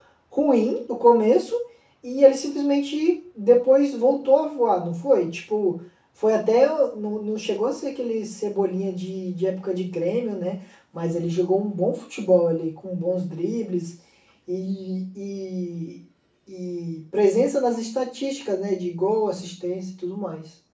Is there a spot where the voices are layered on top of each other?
No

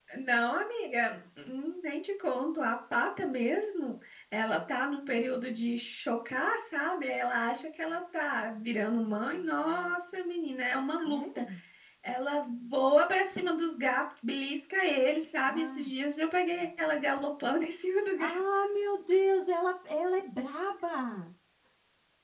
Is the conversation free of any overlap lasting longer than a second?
Yes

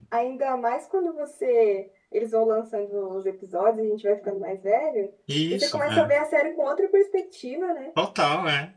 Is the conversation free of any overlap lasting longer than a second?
Yes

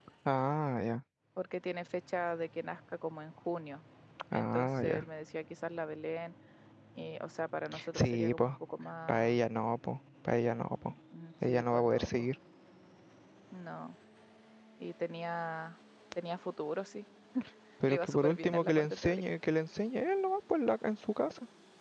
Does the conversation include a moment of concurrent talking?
Yes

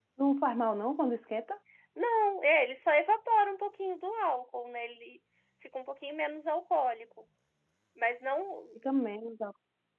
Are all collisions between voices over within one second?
Yes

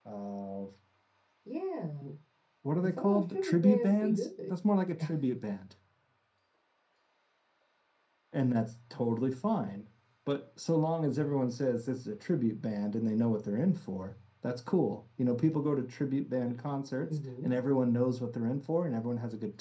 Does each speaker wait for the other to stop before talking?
No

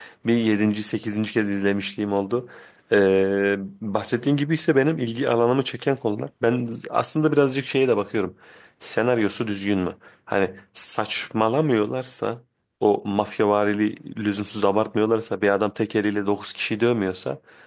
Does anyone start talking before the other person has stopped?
No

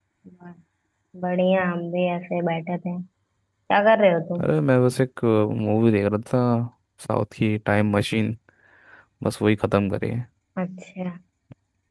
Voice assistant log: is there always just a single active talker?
Yes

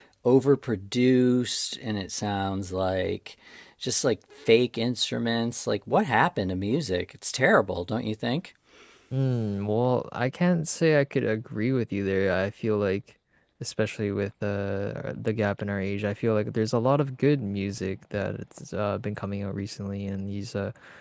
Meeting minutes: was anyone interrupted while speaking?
No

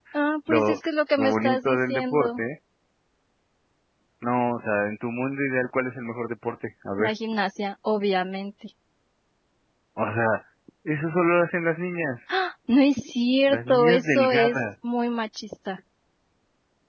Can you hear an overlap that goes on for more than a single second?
Yes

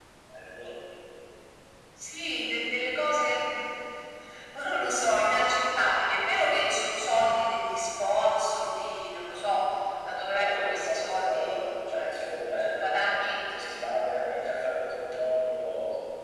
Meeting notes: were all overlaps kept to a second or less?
No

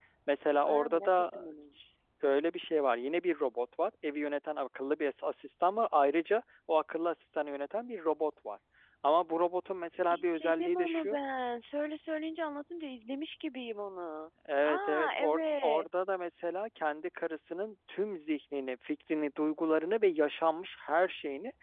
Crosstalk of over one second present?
Yes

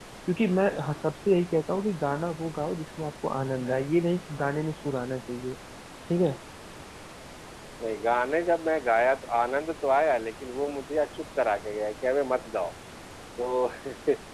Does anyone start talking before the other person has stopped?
No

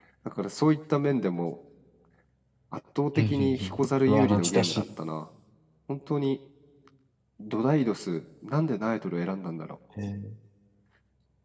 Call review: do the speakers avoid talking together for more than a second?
No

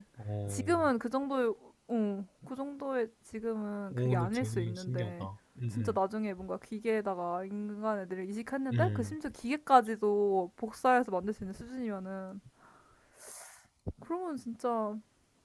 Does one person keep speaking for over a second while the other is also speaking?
Yes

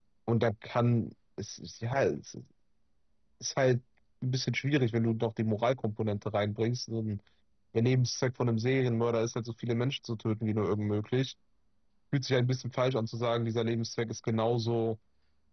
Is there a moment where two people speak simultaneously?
No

